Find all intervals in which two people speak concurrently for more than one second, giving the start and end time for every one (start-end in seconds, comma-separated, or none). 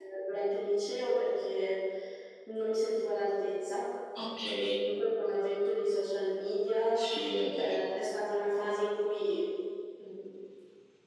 none